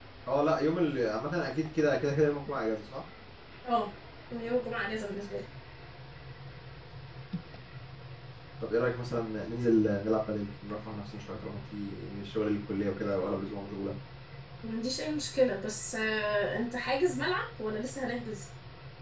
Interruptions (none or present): none